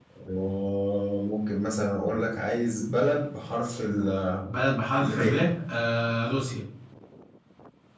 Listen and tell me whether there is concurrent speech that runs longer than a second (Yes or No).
No